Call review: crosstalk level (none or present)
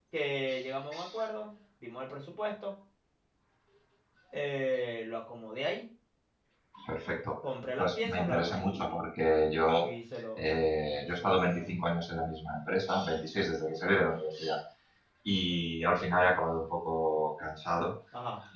present